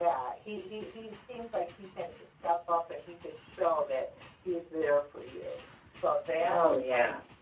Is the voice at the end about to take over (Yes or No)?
No